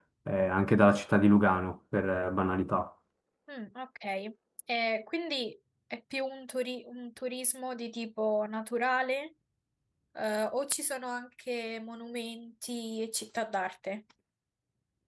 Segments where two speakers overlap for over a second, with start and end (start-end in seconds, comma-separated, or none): none